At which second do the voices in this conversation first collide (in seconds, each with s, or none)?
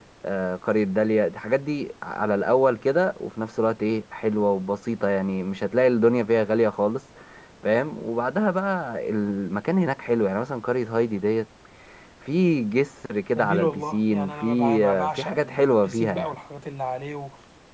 13.4 s